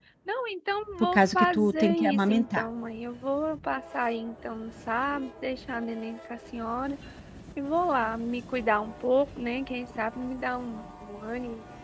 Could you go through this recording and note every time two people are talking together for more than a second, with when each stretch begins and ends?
1.1-2.6

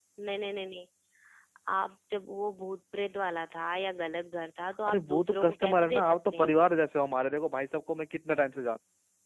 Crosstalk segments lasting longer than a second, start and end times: 4.9-6.7

